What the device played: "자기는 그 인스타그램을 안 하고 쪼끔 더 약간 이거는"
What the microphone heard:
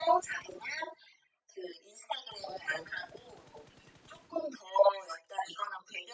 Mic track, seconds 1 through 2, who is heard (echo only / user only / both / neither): echo only